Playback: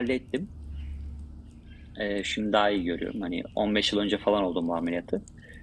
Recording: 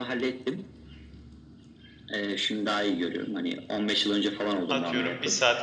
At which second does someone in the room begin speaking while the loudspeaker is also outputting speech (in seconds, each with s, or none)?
4.7 s